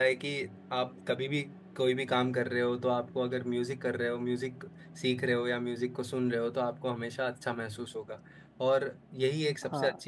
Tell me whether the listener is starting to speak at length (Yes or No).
No